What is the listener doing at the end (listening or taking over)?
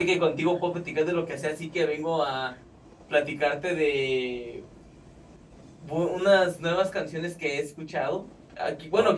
listening